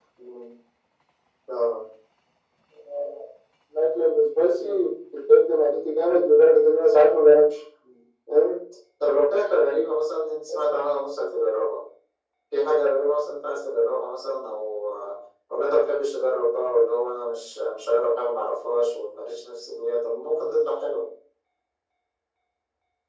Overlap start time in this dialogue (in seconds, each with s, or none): none